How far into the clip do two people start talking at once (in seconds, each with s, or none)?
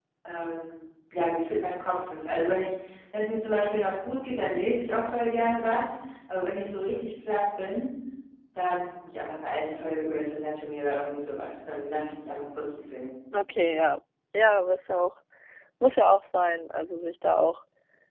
none